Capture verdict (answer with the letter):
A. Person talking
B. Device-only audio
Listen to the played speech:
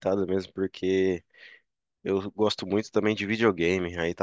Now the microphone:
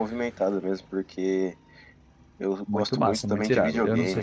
A